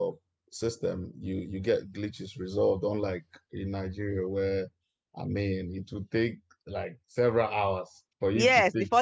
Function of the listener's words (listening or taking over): taking over